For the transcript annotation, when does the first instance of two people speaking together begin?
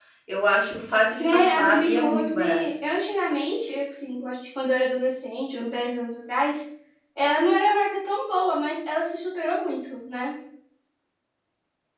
1.2 s

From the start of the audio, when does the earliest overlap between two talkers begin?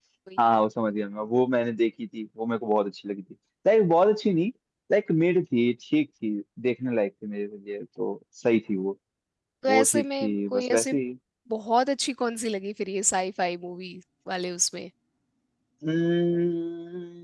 9.7 s

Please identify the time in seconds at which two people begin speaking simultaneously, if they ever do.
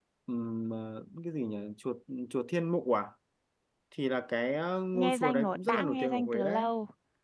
4.9 s

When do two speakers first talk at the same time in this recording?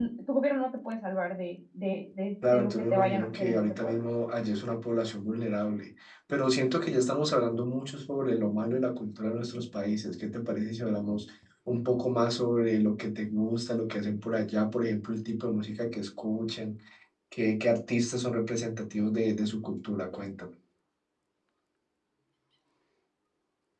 2.4 s

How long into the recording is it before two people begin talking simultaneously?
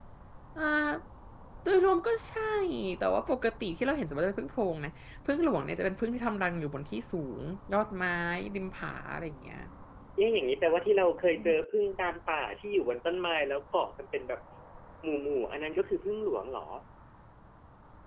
none

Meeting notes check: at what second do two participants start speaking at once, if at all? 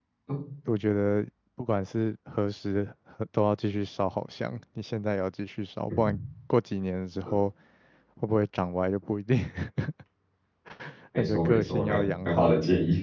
11.2 s

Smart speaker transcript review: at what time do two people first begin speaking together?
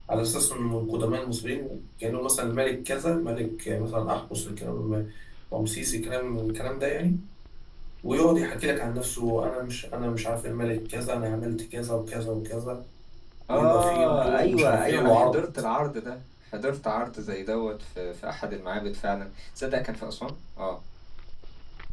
13.5 s

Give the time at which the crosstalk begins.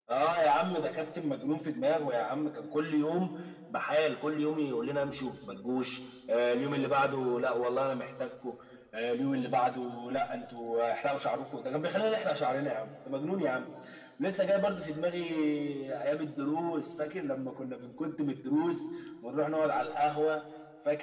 none

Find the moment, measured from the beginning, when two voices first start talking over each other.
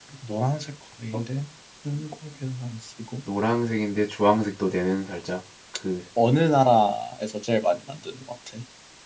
none

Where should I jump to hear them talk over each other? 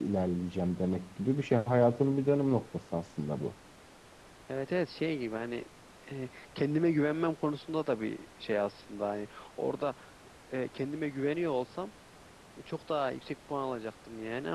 none

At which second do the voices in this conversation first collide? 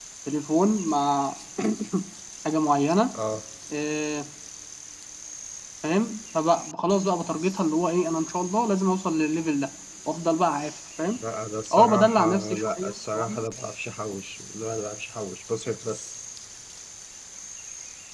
11.7 s

